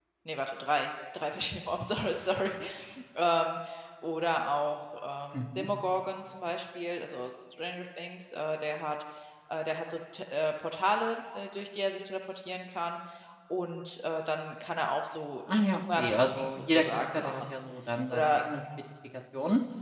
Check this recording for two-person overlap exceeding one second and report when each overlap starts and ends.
15.5-17.5

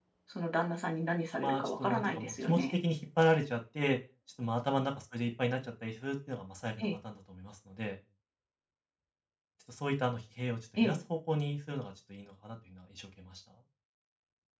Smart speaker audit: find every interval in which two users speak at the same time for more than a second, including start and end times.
1.4-2.8

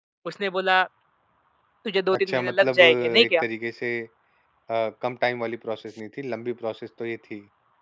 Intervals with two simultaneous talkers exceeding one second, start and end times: 2.1-3.4

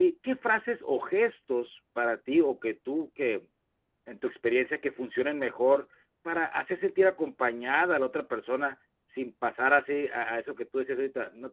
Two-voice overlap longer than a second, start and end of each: none

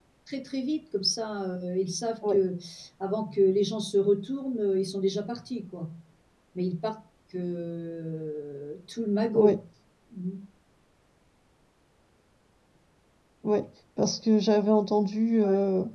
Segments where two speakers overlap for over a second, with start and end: none

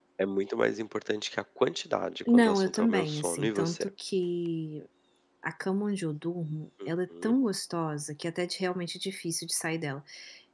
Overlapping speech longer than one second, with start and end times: 2.3-3.9

